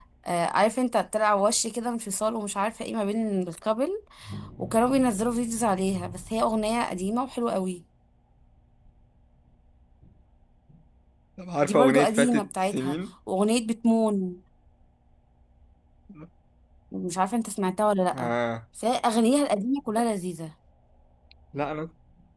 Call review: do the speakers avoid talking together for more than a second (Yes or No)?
No